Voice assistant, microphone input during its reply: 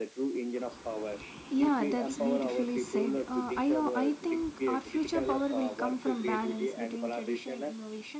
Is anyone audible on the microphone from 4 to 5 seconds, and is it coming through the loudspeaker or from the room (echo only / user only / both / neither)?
both